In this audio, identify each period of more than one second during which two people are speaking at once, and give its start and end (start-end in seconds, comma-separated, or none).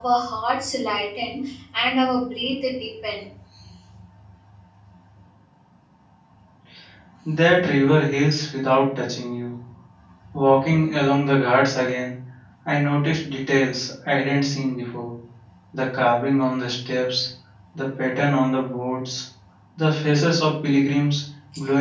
none